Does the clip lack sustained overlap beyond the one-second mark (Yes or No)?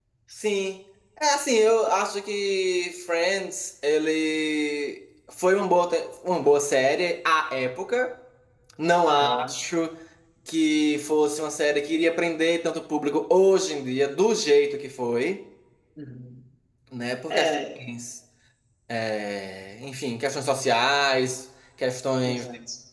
Yes